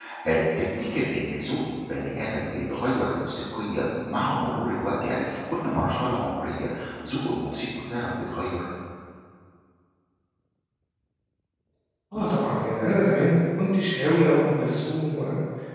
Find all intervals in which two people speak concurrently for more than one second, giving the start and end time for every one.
none

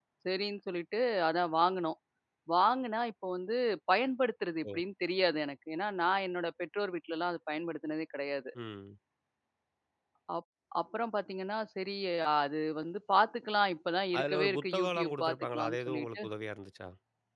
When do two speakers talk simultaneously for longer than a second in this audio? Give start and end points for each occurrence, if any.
14.2-16.2

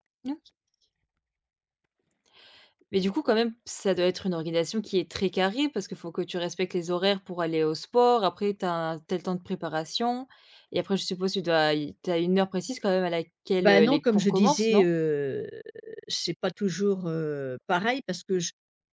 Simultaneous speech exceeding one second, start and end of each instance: 13.6-14.8

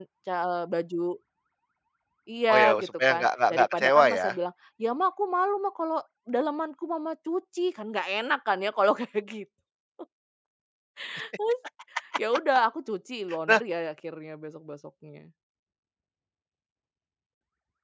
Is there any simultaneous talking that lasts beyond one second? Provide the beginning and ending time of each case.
2.5-4.3

